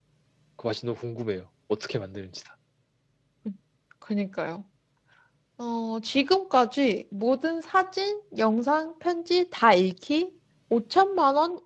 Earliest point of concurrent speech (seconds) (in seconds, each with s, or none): none